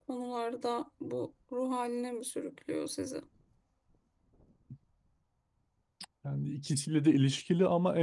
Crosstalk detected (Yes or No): No